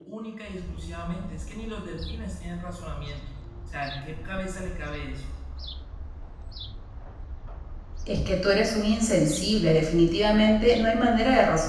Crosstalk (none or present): none